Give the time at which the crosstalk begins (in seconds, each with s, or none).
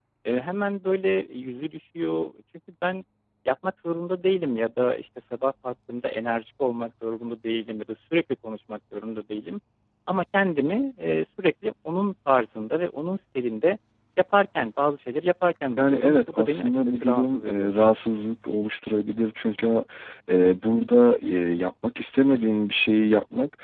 15.8 s